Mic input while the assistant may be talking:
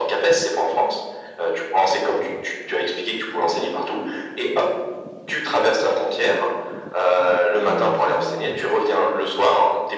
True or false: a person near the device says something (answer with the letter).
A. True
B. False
A